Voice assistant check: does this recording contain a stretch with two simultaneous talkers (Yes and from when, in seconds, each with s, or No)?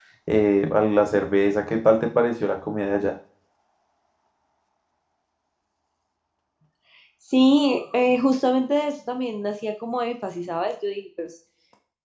No